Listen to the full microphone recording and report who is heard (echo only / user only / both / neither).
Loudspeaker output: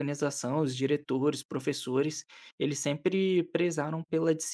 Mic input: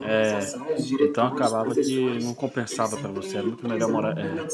both